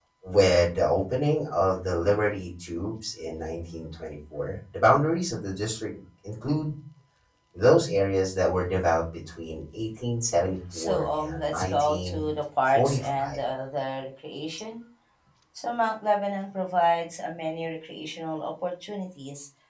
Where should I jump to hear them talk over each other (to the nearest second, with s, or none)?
11 s